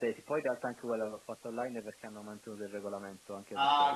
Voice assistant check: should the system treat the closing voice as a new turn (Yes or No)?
Yes